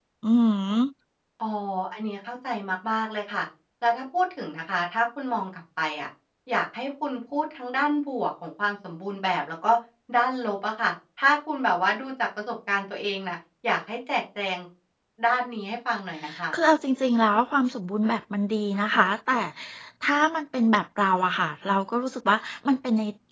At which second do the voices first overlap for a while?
none

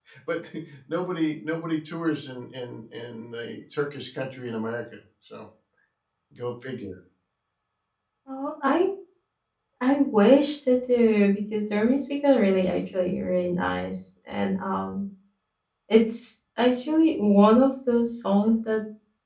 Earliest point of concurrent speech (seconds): none

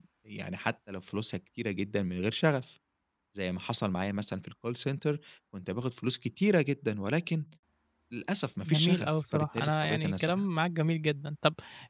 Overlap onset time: 8.7 s

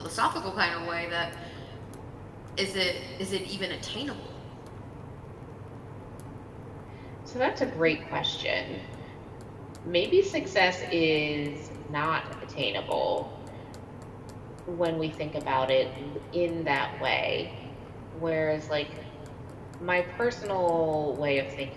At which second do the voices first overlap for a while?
none

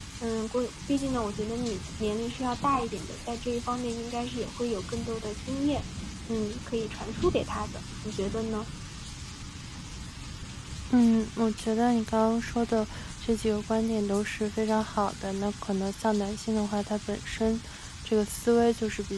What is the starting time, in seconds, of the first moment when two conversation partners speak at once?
none

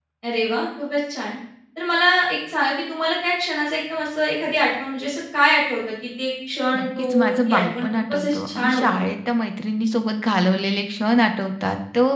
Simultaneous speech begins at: 6.7 s

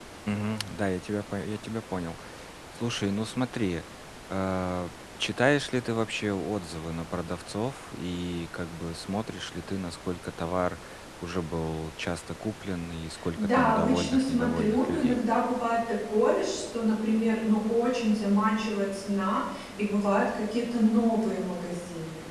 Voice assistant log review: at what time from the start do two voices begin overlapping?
13.1 s

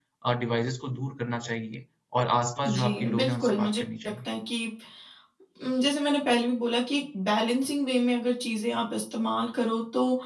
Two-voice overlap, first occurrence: 2.6 s

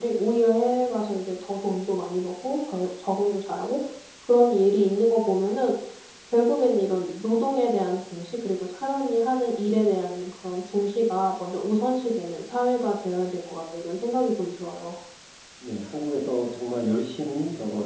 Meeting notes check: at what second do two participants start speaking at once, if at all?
none

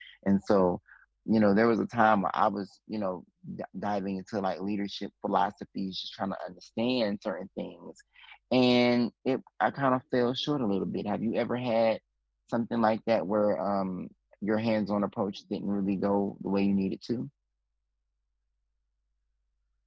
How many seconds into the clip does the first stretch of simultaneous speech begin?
none

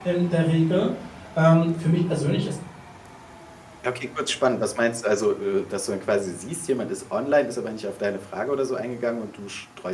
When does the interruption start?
none

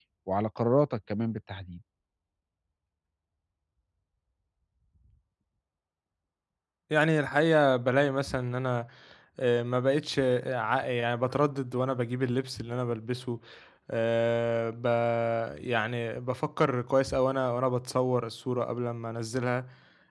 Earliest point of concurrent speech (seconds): none

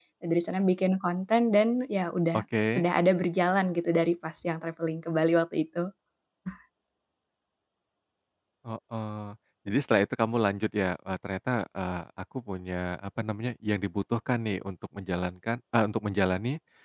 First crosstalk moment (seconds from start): none

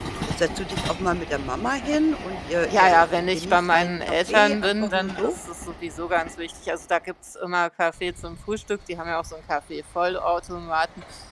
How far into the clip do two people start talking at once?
2.7 s

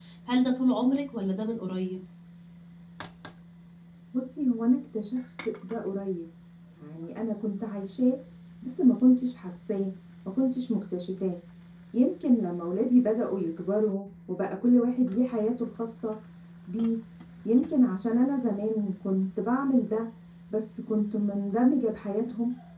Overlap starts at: none

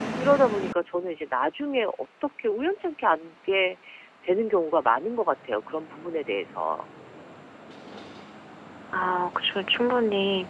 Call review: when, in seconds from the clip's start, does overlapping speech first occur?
none

